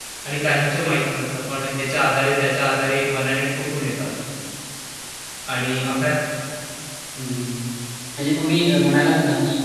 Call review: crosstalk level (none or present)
none